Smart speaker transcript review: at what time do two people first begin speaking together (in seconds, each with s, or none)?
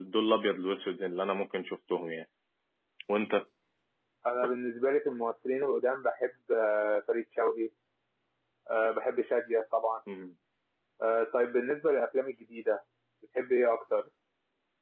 none